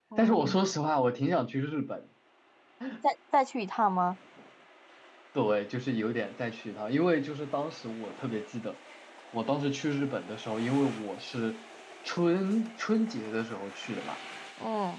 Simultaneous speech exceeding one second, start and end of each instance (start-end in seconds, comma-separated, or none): none